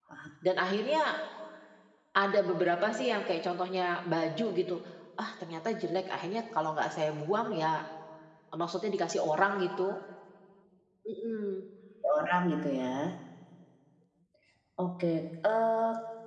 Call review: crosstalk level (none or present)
none